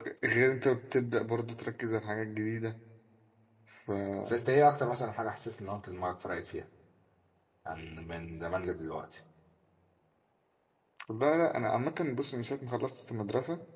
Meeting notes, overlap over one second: none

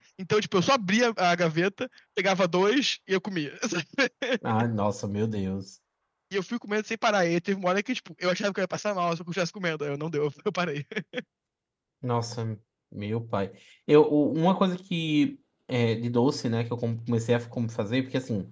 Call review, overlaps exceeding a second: none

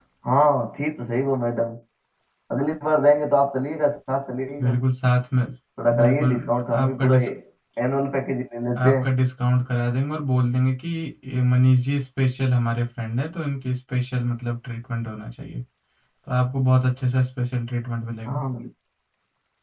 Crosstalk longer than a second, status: present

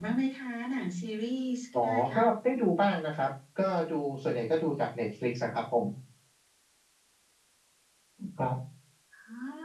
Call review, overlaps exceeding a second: none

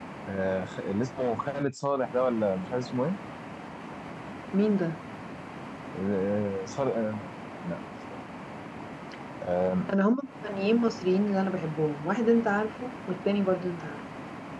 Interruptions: none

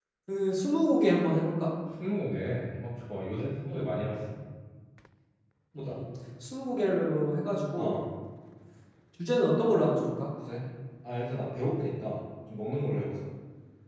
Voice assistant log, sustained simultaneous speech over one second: none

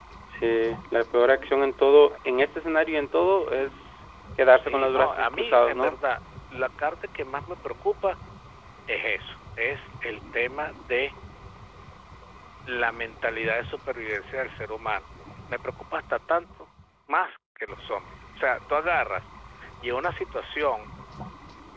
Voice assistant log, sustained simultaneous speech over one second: present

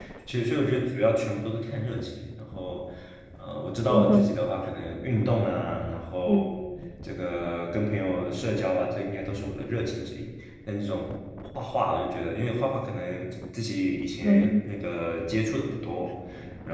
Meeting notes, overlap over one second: none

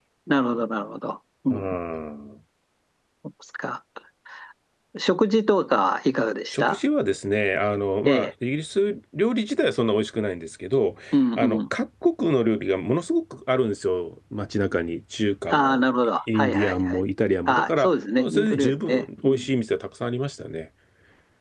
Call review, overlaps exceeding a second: present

